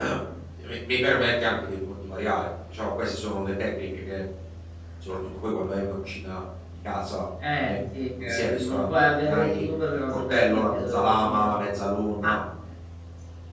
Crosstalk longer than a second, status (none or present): present